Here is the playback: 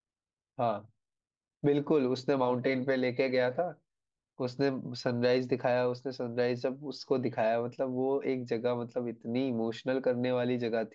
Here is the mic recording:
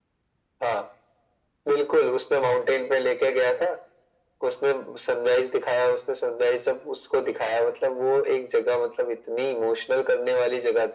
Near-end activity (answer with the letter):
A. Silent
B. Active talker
A